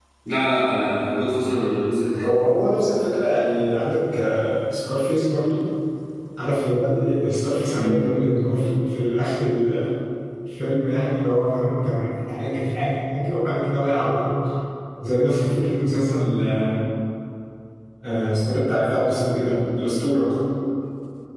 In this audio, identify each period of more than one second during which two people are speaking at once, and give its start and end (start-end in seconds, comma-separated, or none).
none